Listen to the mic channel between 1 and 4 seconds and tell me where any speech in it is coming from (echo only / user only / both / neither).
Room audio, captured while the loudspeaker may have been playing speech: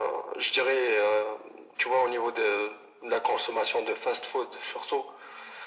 echo only